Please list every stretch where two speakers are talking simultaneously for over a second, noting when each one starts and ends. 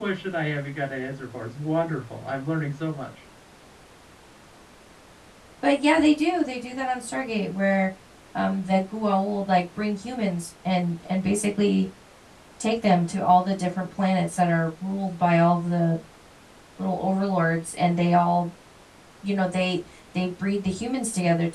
none

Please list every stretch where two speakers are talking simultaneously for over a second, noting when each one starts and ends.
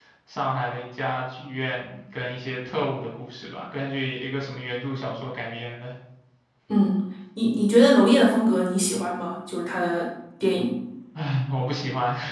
none

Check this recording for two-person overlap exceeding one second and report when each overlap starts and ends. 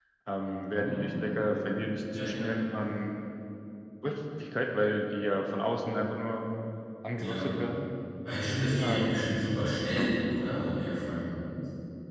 none

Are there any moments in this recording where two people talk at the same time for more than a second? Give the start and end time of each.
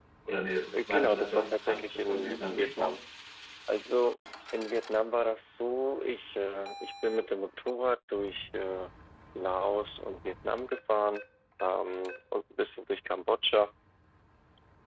0.9-2.9

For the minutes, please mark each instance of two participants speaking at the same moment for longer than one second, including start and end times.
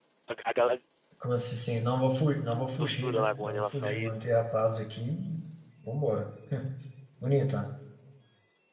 2.8-4.4

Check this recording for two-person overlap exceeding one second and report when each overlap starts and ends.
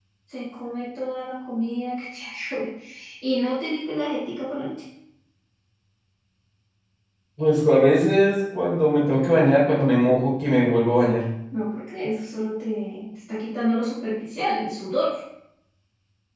none

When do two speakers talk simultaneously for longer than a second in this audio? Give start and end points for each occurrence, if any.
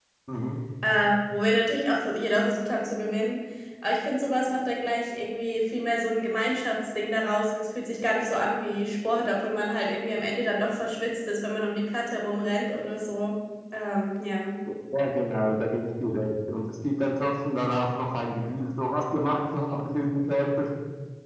none

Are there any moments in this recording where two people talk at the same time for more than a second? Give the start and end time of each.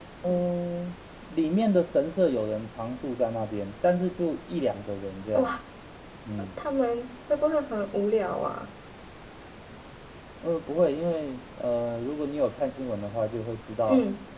none

